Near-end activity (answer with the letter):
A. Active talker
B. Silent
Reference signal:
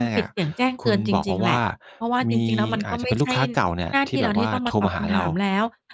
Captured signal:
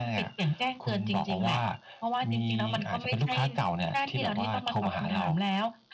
B